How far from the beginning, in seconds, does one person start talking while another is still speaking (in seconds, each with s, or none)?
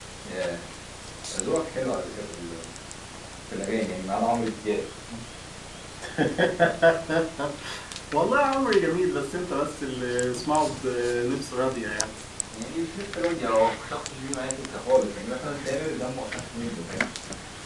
none